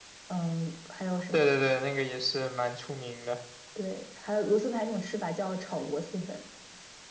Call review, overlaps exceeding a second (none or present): none